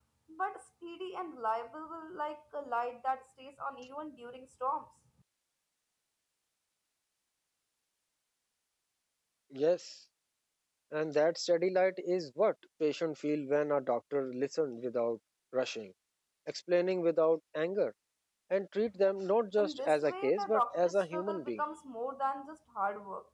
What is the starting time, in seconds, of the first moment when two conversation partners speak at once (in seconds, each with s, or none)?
19.6 s